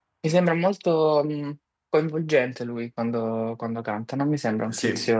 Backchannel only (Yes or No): Yes